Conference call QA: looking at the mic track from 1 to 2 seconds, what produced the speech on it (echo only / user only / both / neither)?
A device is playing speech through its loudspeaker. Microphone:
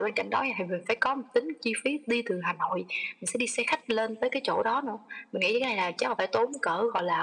echo only